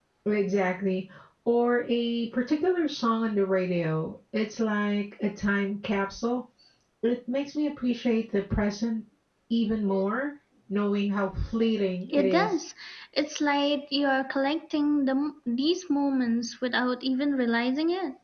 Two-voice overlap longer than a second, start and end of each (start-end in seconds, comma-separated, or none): none